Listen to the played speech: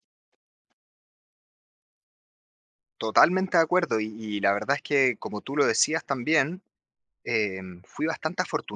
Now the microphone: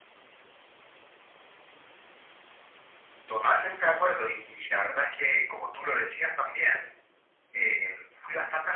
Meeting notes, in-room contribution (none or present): none